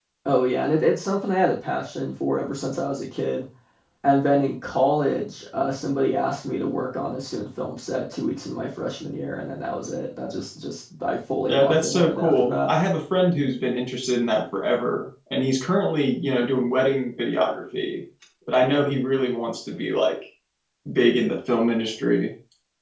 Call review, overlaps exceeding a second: present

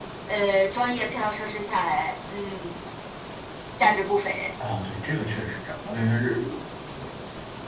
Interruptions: none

